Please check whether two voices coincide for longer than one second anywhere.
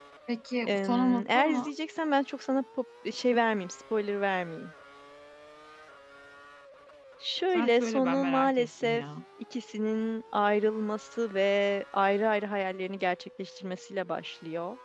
Yes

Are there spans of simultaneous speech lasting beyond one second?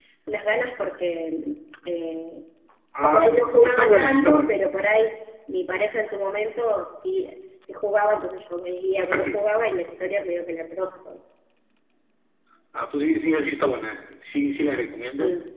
Yes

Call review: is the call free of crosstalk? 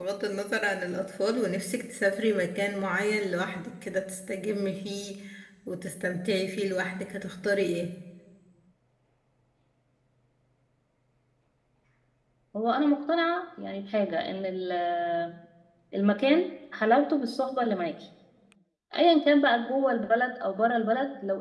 Yes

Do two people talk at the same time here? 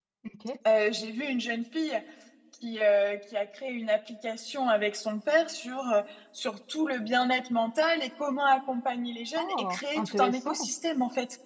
Yes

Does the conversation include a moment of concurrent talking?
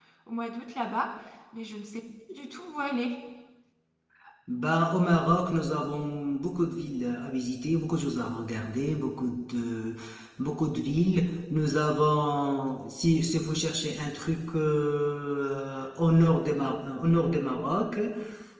No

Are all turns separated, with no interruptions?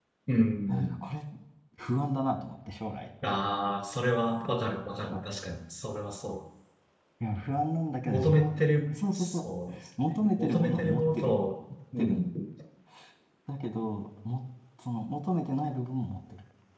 No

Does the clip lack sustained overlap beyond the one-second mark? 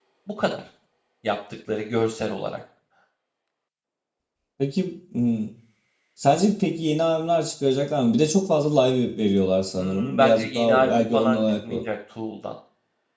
No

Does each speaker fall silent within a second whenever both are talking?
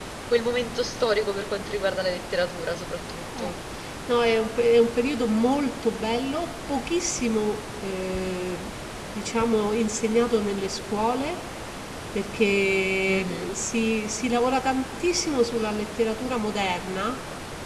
Yes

